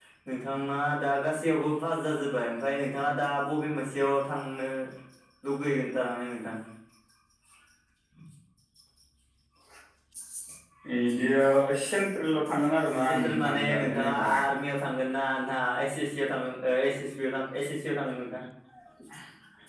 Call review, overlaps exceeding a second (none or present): present